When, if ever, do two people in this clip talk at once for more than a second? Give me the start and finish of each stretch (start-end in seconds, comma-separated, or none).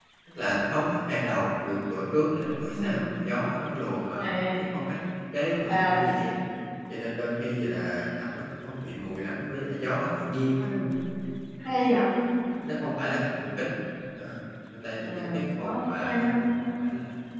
15.0-16.4